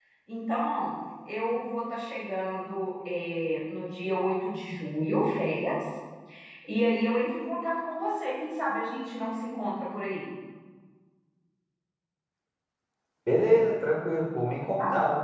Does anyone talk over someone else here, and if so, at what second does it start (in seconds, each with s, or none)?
none